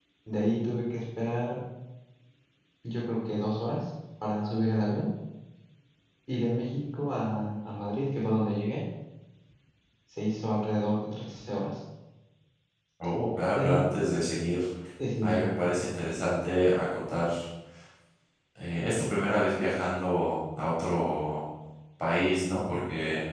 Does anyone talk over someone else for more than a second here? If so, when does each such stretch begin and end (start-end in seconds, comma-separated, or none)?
none